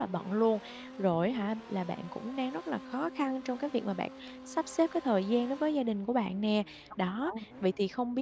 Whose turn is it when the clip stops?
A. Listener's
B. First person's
B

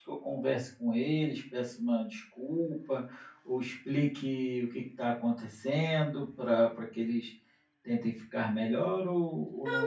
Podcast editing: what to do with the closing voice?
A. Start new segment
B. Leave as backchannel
A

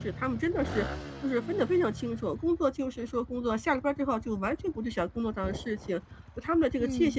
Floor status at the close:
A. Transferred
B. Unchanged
B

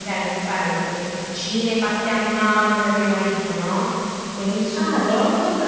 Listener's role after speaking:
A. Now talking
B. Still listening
A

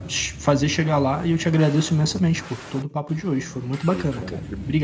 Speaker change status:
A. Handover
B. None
A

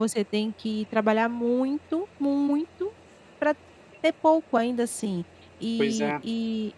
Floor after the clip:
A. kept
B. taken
A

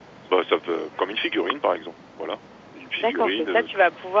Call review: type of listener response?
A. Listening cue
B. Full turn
B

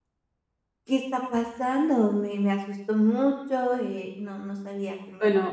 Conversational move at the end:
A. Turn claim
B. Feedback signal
A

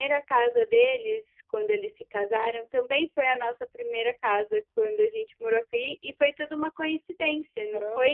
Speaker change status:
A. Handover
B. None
A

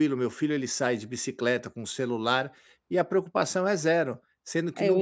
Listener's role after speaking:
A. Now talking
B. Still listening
B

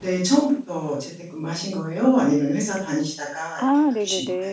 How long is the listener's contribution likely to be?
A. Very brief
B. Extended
B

